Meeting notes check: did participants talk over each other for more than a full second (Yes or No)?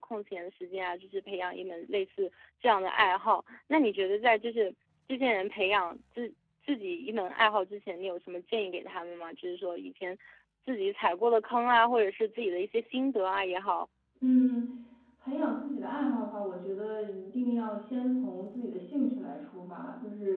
No